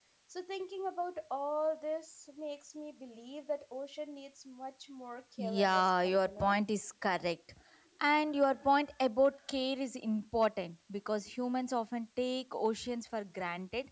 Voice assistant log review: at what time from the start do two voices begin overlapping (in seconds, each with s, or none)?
5.4 s